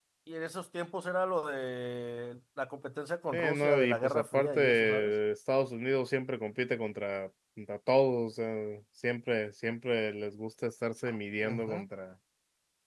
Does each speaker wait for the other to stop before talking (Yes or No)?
No